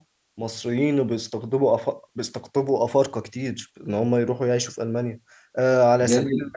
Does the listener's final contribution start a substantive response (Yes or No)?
No